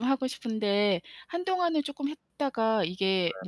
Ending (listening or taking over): listening